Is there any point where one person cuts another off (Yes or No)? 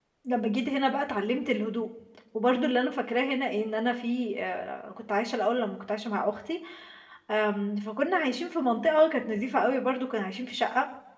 No